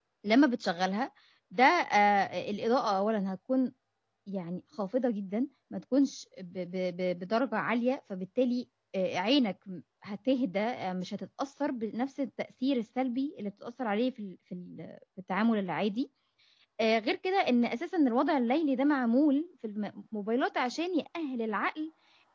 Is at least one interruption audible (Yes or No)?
No